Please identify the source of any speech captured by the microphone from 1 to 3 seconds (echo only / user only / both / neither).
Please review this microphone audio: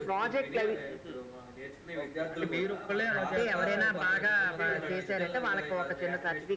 both